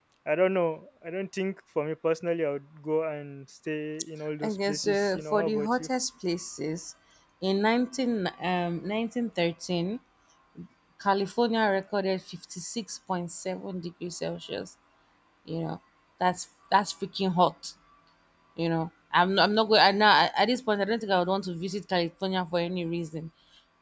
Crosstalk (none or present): present